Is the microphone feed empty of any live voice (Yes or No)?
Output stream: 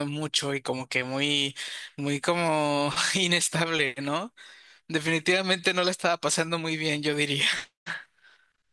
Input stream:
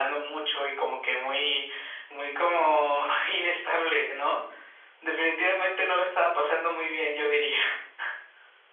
Yes